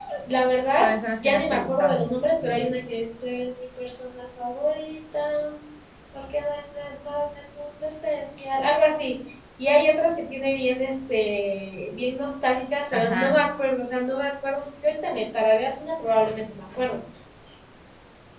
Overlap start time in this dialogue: 1 s

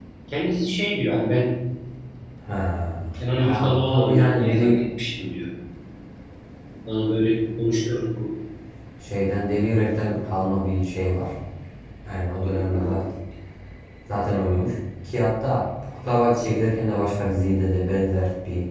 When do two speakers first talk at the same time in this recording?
3 s

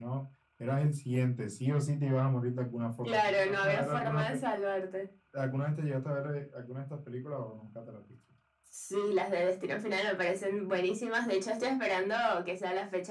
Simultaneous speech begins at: 3 s

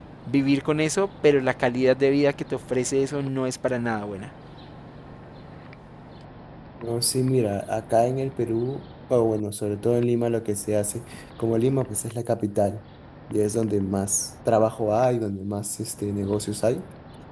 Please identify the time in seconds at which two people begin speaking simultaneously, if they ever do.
none

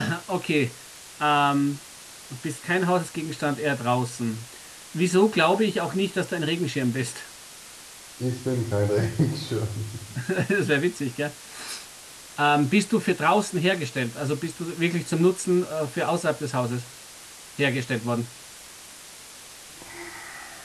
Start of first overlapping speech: none

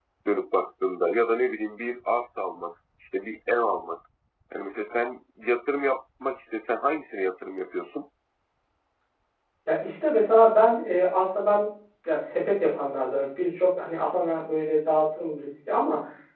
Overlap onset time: none

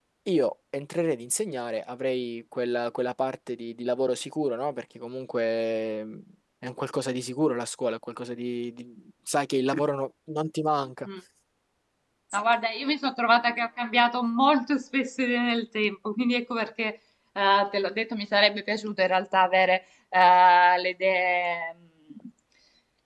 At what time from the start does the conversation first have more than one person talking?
none

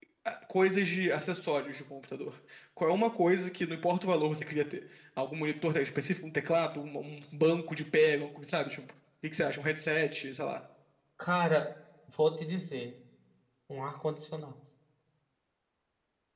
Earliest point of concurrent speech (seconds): none

